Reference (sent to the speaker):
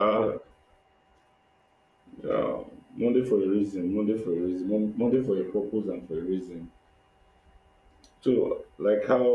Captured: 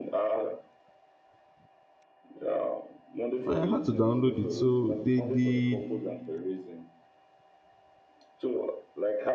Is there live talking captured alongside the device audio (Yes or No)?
Yes